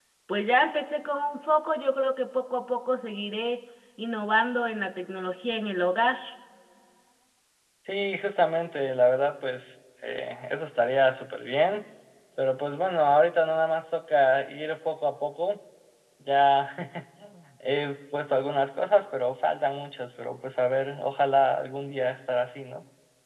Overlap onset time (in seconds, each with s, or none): none